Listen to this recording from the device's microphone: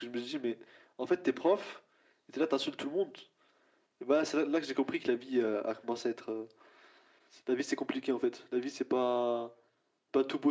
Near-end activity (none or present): none